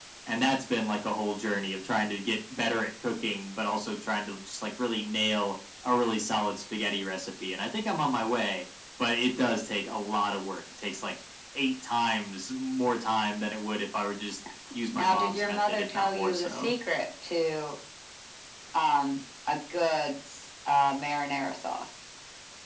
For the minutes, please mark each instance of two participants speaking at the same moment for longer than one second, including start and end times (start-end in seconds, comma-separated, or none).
14.9-16.7